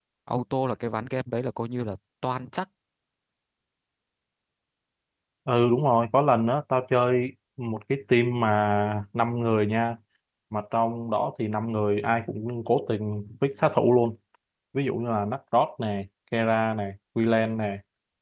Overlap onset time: none

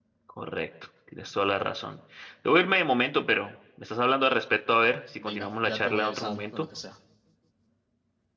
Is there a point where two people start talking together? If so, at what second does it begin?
5.2 s

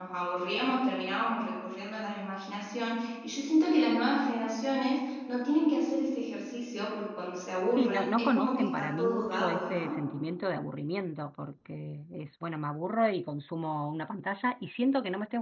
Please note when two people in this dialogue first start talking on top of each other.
7.8 s

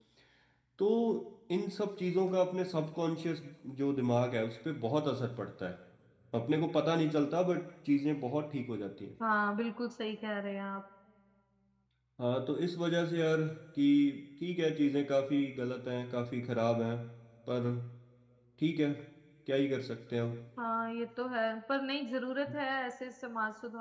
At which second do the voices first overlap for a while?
none

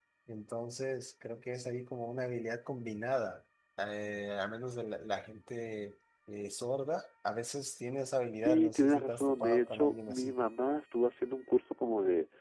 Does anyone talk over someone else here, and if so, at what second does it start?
8.3 s

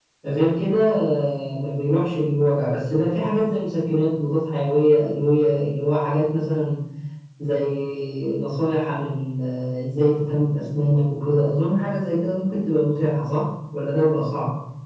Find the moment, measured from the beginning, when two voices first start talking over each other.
none

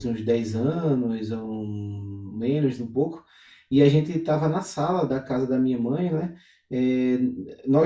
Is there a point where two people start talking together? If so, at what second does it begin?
none

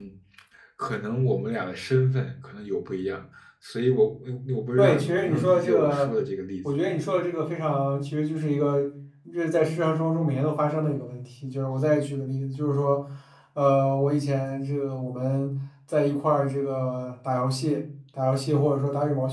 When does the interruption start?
4.8 s

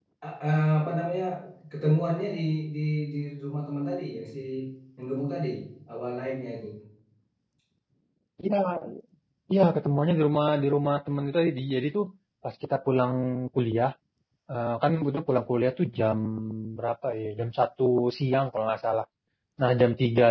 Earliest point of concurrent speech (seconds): none

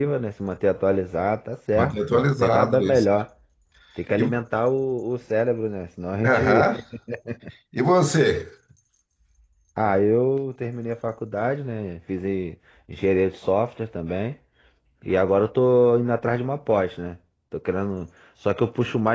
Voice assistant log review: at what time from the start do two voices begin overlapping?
1.8 s

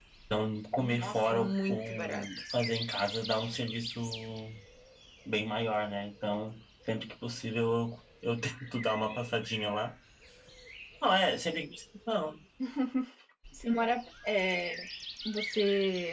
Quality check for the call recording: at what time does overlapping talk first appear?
0.8 s

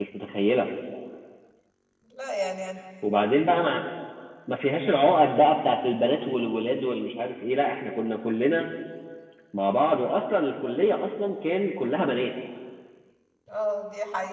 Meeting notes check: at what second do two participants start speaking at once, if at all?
none

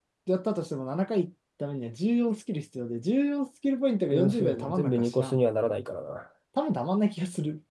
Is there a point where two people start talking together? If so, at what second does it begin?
4.1 s

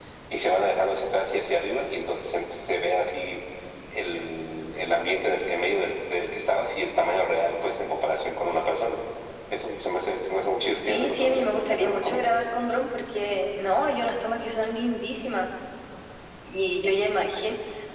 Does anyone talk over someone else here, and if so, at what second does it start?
10.9 s

